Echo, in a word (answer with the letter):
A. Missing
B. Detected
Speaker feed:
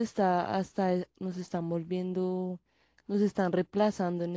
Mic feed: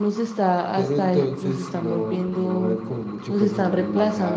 B